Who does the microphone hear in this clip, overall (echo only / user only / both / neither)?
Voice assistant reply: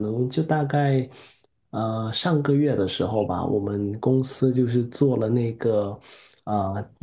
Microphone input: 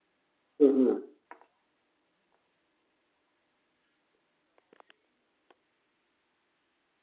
user only